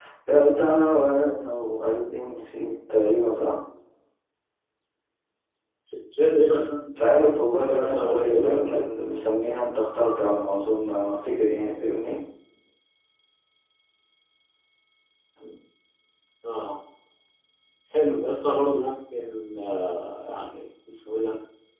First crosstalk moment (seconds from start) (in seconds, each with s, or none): 7.0 s